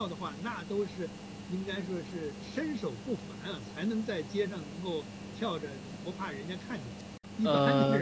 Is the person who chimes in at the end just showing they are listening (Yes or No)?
No